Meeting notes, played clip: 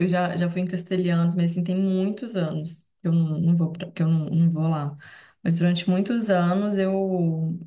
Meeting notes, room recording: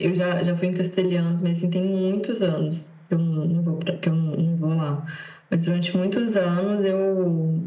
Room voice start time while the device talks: none

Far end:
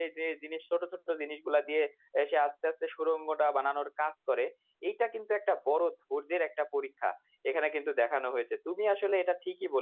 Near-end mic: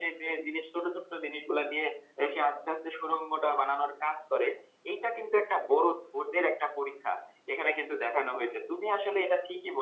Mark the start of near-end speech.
none

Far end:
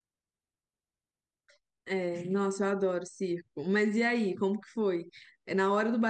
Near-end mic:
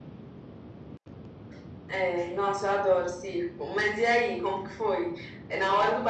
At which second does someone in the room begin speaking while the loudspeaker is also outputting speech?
none

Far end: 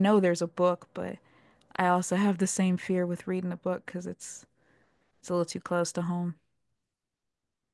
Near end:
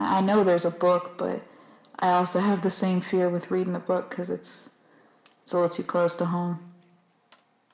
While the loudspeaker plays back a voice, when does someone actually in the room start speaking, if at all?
none

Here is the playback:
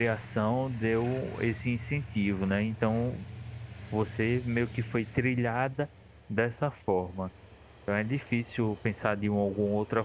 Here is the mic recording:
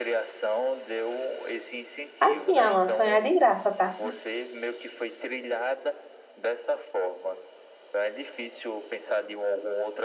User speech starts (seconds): 2.2 s

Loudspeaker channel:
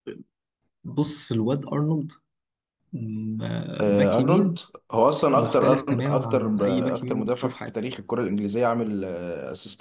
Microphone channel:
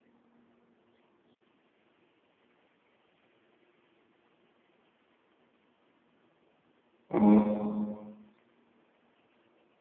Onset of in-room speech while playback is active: 7.1 s

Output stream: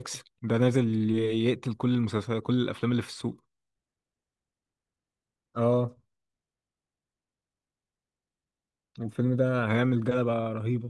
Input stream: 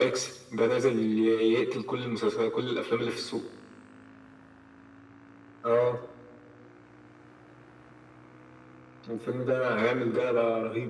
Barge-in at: none

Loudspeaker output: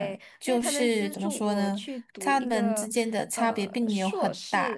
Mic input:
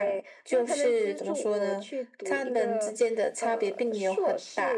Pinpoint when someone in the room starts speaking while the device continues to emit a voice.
none

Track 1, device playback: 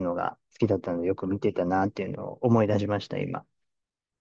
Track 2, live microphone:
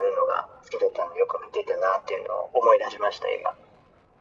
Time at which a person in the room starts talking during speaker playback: none

